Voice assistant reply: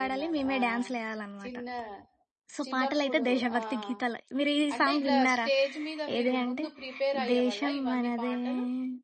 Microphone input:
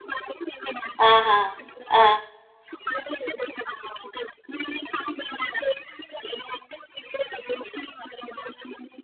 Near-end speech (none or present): present